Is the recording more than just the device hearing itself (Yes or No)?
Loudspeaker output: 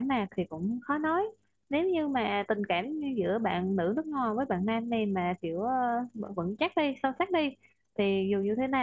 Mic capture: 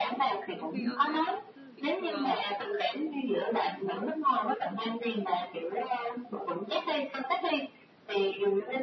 Yes